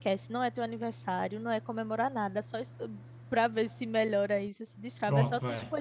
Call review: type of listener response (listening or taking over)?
listening